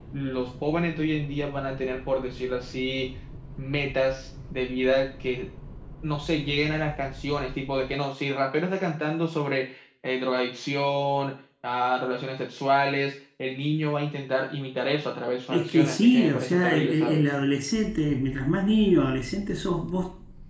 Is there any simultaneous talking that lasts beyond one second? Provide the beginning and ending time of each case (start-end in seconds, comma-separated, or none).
15.5-17.3